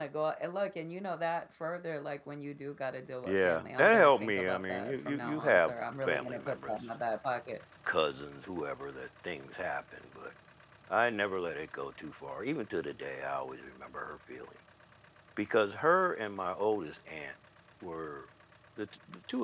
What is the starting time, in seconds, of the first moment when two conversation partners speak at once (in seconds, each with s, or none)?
3.2 s